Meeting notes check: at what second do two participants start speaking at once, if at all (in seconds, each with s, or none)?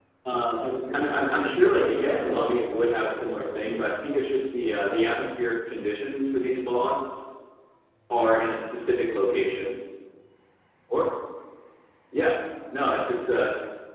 0.9 s